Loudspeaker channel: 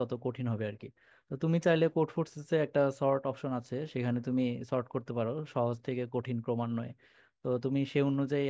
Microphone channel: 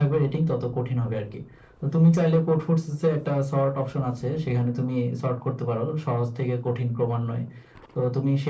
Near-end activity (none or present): none